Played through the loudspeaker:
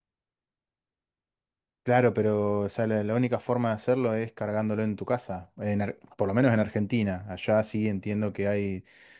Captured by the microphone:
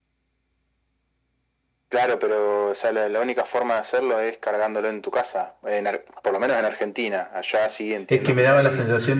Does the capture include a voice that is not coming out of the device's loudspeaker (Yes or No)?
Yes